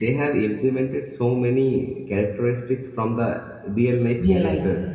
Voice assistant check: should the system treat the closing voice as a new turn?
Yes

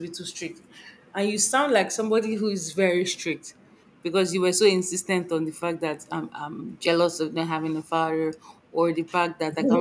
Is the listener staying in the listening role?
Yes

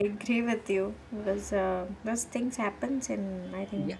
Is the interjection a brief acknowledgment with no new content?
No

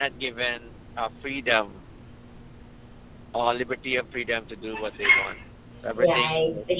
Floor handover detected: Yes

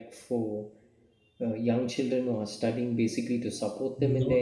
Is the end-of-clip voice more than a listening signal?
Yes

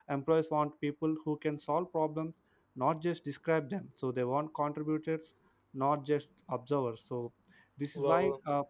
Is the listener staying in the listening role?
Yes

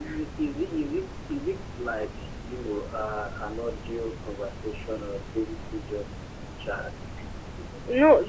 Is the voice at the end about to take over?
Yes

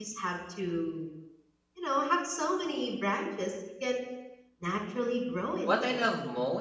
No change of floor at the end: No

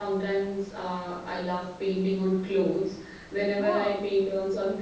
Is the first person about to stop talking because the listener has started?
No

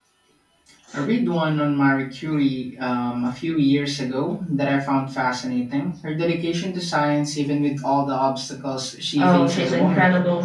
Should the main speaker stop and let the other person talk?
Yes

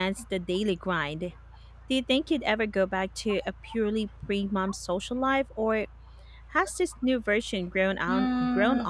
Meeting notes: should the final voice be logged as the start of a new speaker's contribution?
Yes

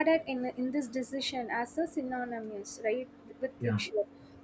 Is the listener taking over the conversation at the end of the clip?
No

